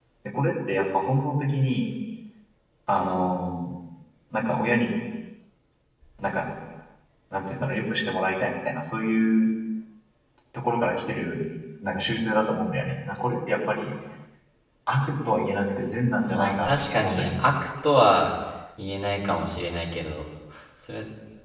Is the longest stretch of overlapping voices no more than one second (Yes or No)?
No